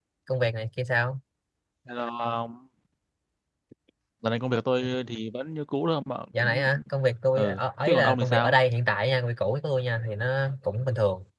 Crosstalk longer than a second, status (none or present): present